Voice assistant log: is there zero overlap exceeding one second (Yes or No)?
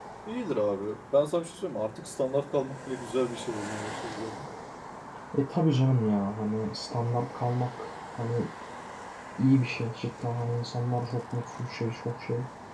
Yes